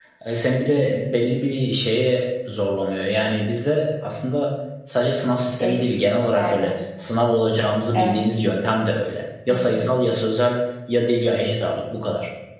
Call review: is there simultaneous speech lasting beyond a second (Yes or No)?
No